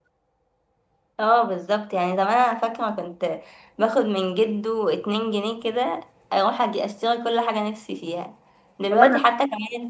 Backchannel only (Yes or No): Yes